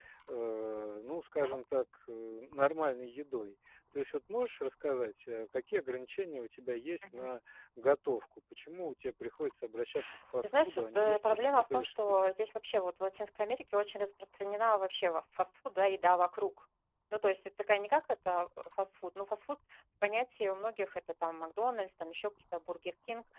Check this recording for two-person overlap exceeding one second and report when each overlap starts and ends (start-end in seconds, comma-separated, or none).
10.4-12.2